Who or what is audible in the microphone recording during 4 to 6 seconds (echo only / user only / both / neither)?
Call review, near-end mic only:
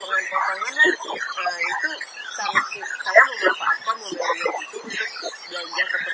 echo only